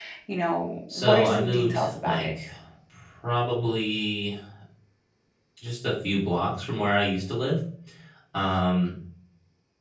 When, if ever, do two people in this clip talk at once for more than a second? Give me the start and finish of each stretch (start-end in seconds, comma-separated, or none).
0.9-2.3